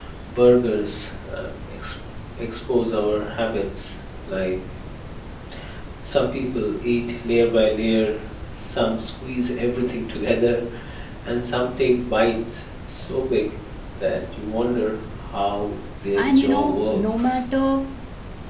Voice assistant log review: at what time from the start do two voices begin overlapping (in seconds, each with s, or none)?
16.1 s